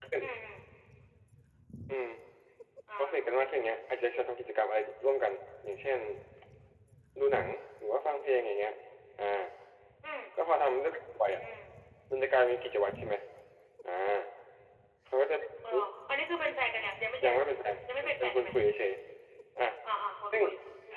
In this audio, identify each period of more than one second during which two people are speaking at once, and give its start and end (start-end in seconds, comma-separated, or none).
17.2-18.5